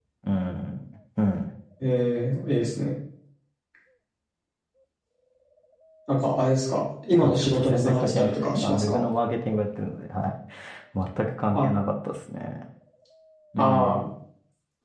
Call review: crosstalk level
present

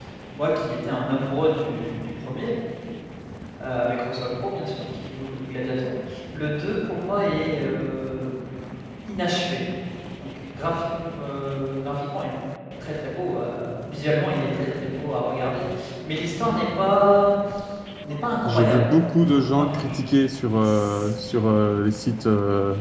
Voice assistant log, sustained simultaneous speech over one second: present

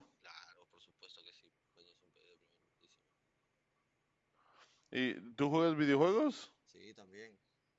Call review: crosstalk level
none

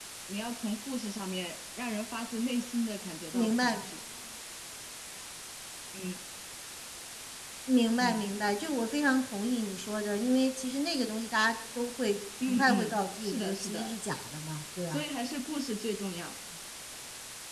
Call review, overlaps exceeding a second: present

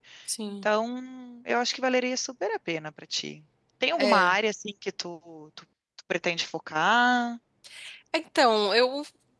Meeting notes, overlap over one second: none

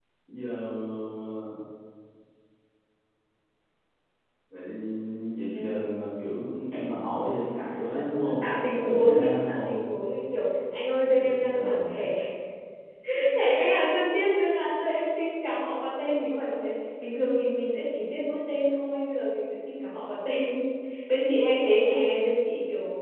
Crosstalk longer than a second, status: present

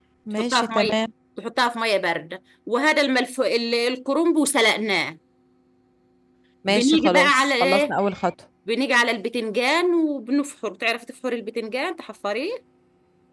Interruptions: present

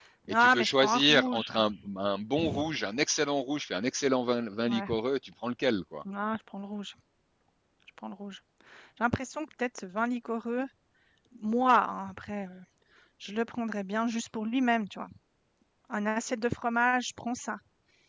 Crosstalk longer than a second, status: present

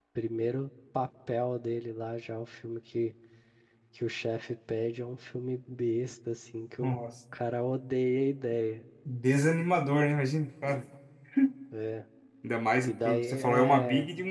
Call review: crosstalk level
present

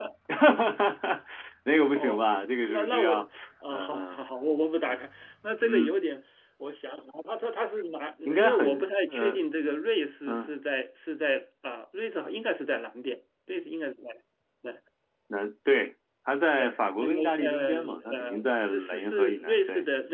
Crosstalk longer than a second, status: present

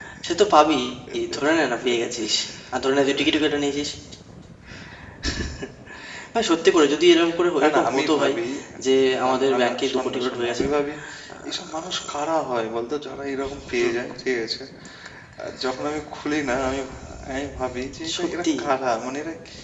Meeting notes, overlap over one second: present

